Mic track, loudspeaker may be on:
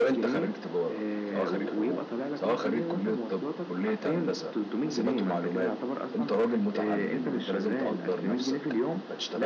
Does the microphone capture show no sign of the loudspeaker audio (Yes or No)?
No